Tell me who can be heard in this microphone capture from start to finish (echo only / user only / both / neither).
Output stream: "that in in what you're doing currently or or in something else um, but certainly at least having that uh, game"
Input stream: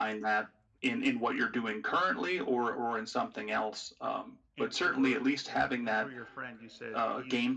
both